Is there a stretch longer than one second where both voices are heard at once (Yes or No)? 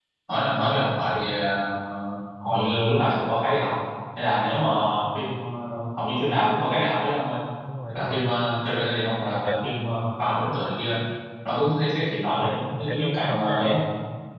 Yes